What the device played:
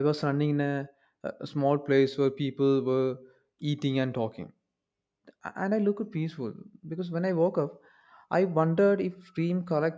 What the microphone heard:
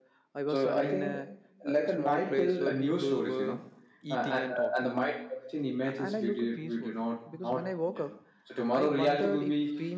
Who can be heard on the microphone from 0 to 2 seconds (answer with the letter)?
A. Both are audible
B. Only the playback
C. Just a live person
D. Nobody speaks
A